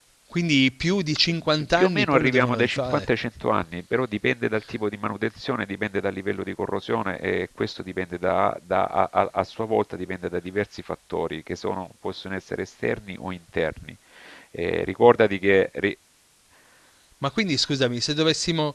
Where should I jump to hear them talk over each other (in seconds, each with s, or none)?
1.8 s